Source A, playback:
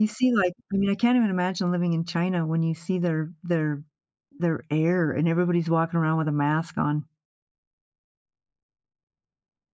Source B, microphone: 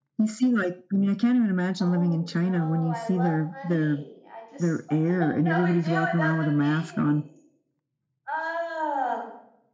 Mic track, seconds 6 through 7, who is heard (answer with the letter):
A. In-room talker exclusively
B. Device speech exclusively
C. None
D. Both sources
D